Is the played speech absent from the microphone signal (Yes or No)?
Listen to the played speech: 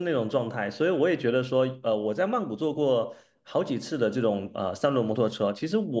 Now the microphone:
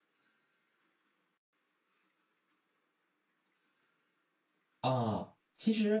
Yes